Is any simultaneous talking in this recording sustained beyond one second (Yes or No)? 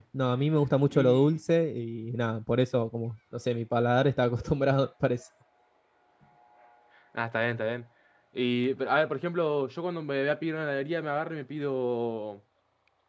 No